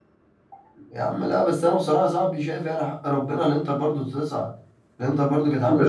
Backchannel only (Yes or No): No